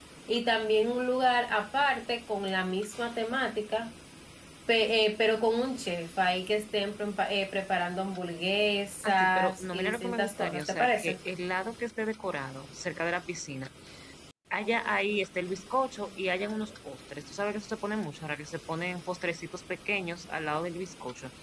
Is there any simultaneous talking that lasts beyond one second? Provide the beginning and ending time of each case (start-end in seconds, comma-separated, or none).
9.0-11.2